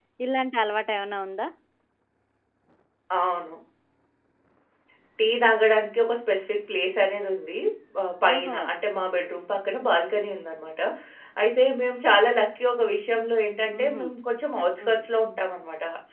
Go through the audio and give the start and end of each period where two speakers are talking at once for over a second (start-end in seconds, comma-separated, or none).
none